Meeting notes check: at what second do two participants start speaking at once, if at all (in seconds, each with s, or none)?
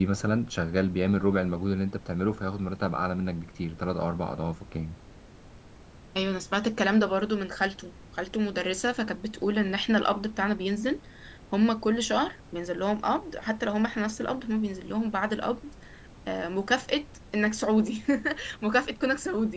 none